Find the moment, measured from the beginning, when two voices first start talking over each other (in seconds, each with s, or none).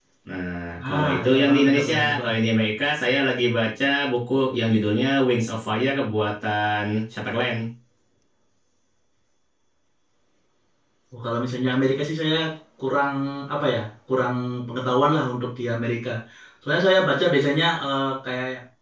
0.9 s